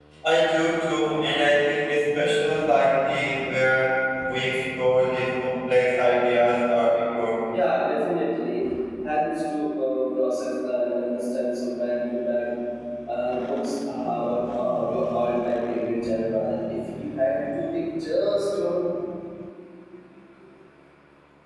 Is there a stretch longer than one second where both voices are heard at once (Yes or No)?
No